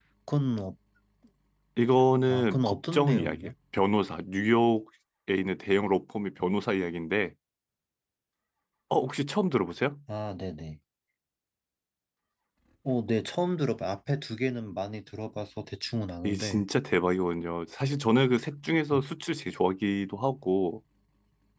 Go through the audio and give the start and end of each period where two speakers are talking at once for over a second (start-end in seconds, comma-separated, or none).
2.3-3.5